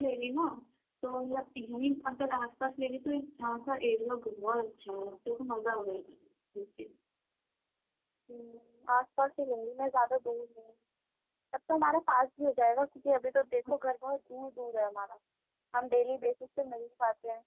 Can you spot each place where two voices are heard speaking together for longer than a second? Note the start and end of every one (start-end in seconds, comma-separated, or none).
none